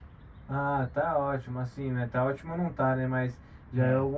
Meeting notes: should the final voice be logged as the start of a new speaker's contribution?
No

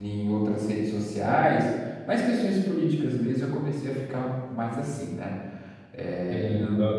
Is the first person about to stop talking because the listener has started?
Yes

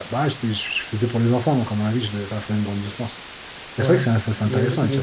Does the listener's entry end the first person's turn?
Yes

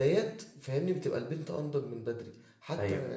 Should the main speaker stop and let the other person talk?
No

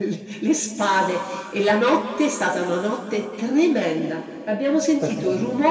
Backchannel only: Yes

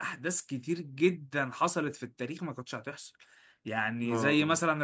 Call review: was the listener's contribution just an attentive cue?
Yes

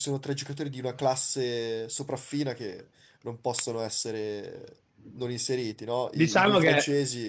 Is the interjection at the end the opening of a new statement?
Yes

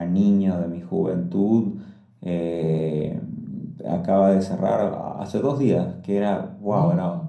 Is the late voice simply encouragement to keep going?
Yes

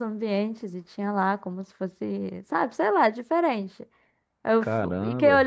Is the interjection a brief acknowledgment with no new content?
Yes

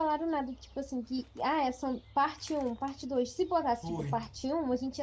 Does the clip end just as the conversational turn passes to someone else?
No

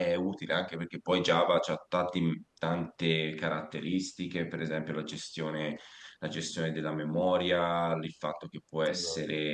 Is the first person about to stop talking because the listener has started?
No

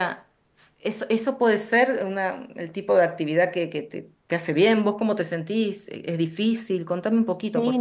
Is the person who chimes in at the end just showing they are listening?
No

